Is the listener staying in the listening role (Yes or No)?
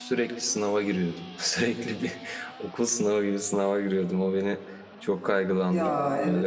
Yes